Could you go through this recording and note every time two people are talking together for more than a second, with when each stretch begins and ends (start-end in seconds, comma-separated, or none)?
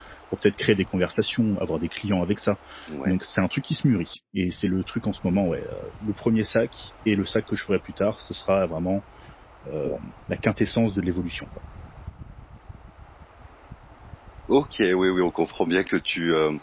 none